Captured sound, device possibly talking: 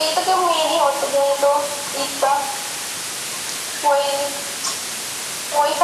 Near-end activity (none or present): none